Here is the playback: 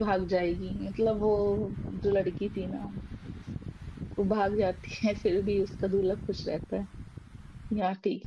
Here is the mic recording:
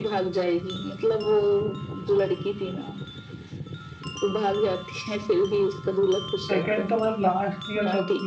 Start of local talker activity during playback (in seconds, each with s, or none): 6.5 s